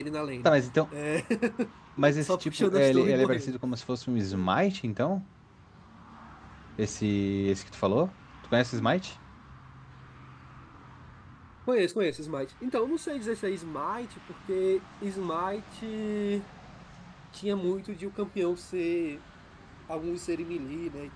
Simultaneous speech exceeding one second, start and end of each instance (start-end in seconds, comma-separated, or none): 2.2-3.6